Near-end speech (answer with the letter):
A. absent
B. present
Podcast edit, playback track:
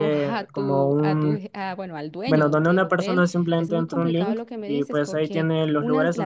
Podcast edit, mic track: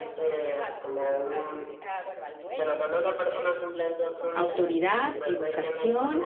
B